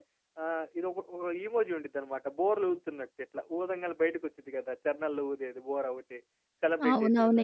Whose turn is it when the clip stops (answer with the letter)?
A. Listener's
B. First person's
A